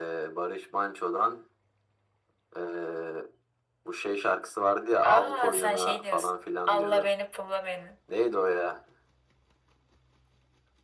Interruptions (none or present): present